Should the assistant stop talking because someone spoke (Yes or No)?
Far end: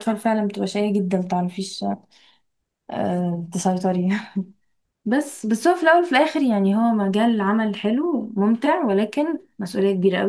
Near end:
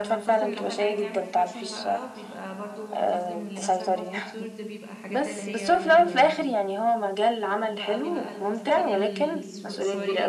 Yes